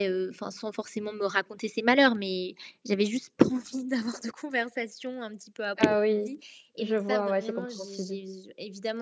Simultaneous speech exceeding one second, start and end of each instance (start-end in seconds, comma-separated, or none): 6.8-8.2